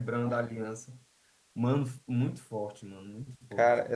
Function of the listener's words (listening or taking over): listening